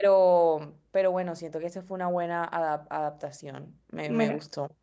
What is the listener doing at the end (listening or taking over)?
taking over